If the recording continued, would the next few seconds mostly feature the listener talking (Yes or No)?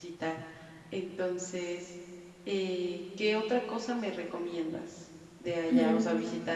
No